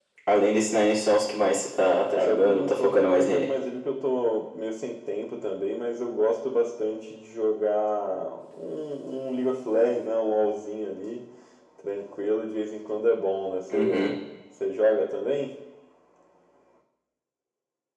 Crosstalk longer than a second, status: present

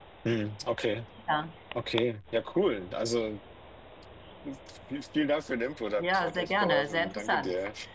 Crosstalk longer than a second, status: present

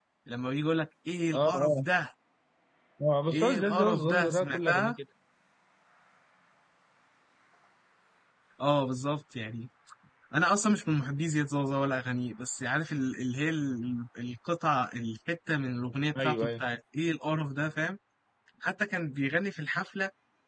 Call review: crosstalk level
present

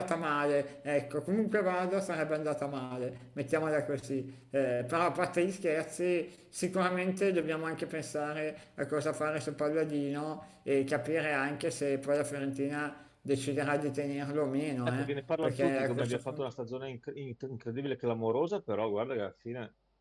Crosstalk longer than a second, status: present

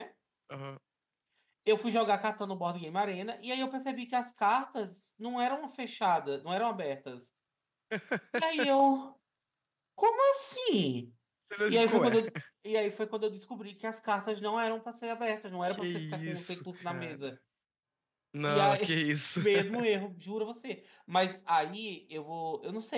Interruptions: present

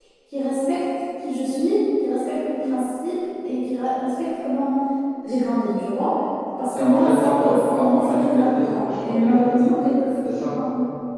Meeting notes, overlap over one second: present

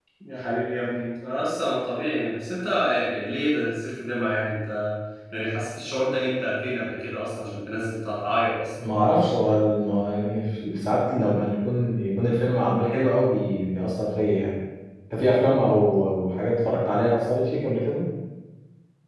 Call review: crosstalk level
none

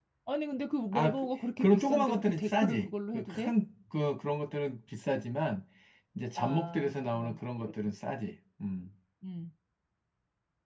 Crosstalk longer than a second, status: present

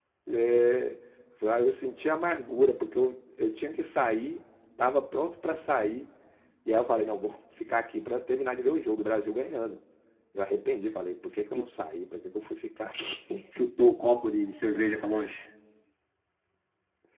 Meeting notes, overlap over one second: none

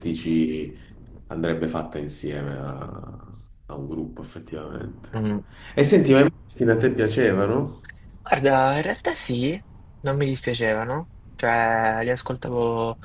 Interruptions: none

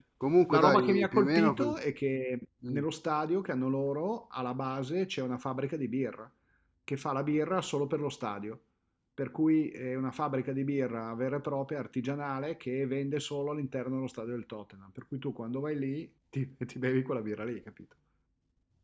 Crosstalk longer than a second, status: present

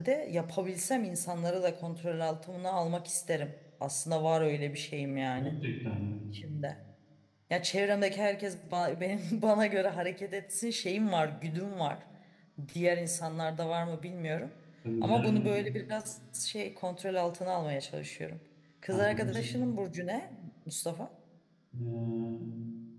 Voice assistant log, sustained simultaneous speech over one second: none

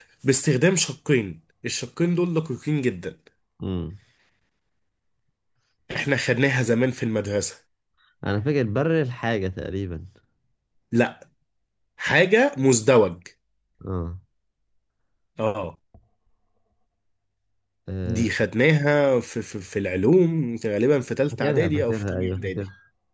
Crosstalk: present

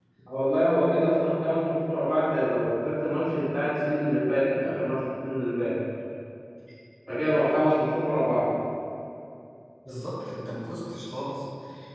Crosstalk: none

